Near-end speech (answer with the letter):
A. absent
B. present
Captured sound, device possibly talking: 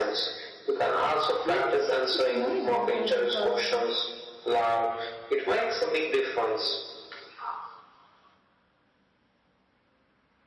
B